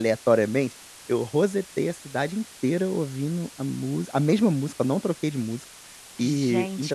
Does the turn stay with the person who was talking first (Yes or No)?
No